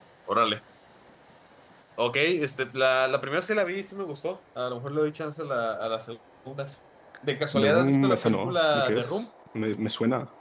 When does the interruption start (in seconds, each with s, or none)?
7.5 s